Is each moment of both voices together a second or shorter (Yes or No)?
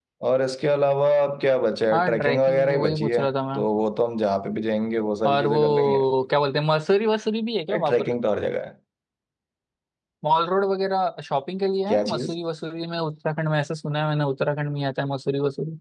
No